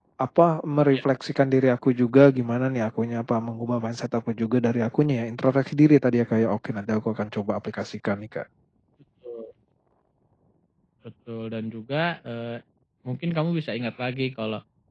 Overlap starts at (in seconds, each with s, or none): none